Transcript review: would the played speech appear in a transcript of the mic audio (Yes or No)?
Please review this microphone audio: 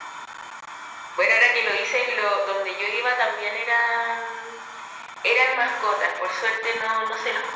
Yes